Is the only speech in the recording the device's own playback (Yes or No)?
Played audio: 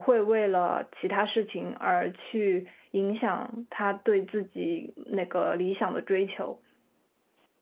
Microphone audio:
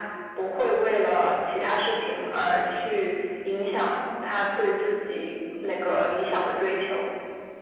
Yes